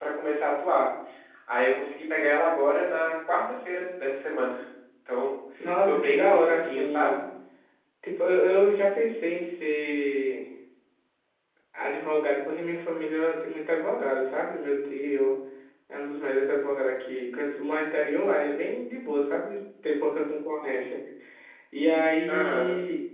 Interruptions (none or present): present